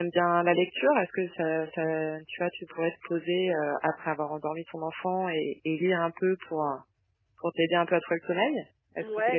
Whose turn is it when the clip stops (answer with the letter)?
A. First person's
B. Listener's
B